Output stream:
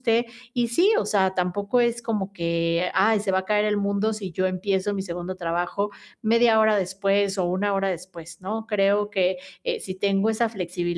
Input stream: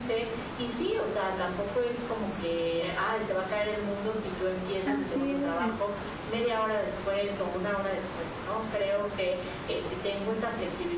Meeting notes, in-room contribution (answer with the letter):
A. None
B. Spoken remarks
B